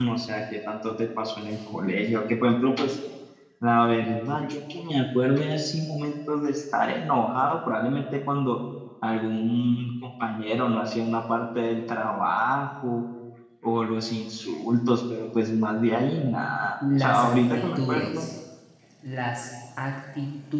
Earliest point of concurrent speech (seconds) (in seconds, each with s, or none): 16.8 s